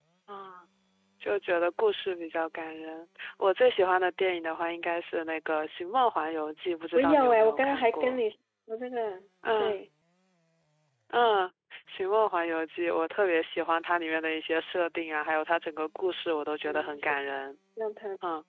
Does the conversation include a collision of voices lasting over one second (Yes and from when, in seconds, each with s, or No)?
Yes, from 7.0 s